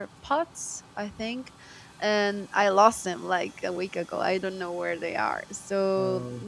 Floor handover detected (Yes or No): No